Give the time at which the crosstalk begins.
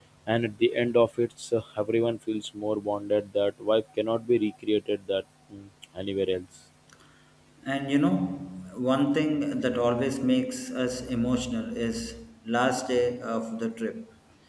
none

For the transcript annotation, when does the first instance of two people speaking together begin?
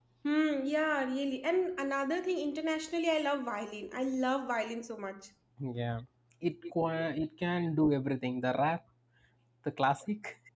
none

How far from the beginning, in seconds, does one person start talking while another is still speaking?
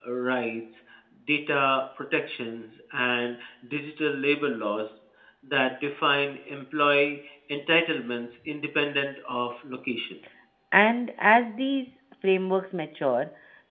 none

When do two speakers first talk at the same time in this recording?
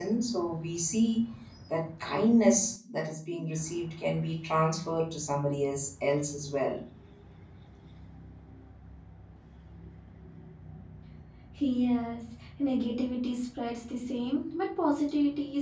none

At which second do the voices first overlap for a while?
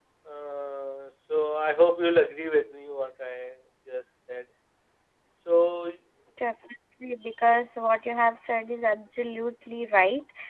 none

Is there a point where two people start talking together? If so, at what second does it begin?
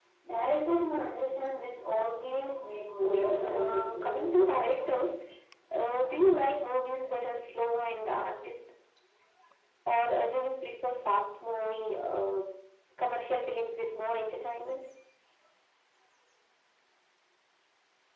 3.0 s

